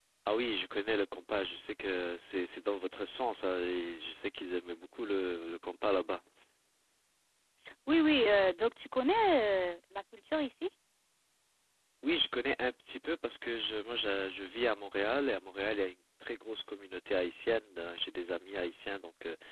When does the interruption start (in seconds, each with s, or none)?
none